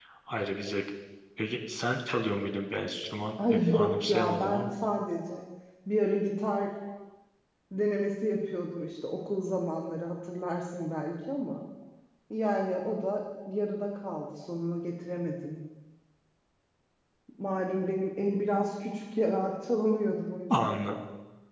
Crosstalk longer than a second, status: present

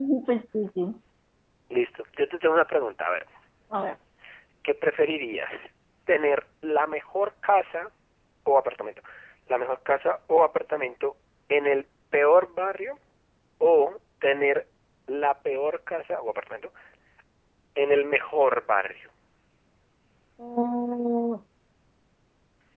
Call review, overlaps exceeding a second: none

